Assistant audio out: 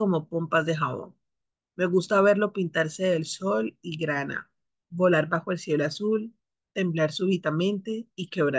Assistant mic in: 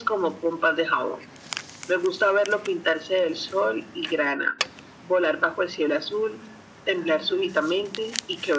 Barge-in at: none

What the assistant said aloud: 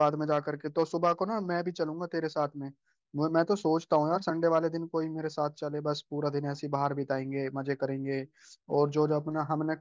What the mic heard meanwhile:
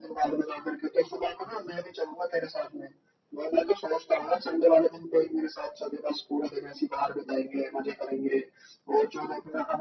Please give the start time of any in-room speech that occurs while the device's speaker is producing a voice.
none

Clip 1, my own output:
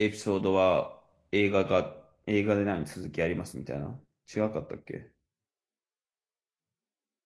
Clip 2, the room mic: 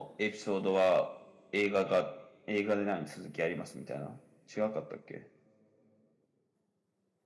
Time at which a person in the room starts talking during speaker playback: none

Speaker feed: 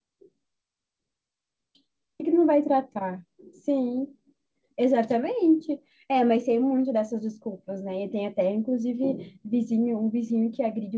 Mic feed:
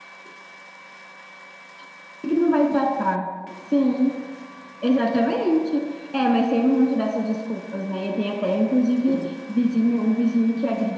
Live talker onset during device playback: none

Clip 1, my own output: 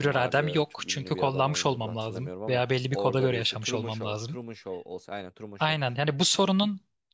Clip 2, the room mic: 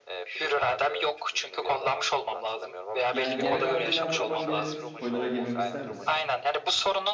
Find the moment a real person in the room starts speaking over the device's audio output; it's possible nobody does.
3.1 s

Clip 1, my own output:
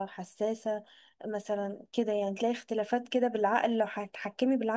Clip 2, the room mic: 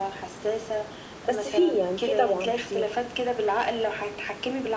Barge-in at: 1.3 s

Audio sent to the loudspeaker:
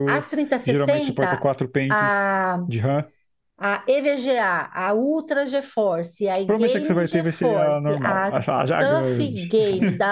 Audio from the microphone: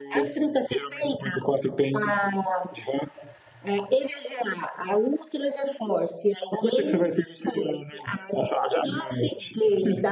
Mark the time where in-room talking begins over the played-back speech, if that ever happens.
none

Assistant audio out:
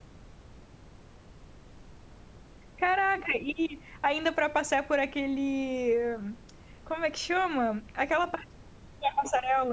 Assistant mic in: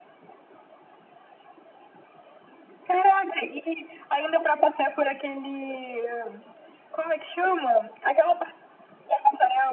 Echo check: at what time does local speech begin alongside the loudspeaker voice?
none

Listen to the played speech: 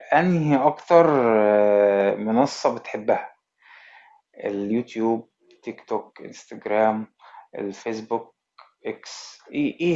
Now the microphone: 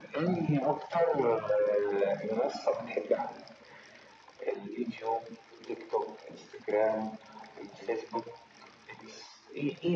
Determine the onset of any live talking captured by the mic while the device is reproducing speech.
none

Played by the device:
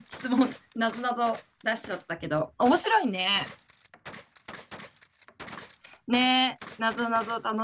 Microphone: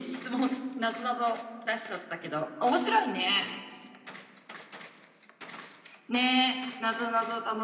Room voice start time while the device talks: none

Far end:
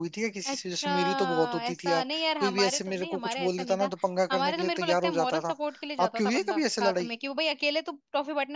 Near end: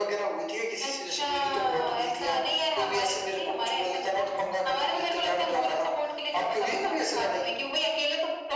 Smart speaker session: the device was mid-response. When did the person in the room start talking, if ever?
none

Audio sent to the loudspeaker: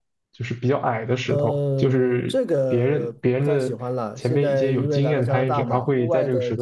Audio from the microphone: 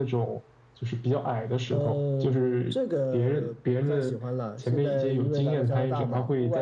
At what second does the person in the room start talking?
none

